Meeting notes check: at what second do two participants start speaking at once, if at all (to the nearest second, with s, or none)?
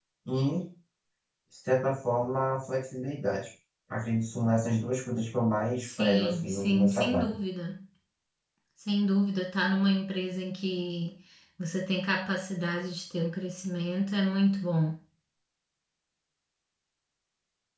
6 s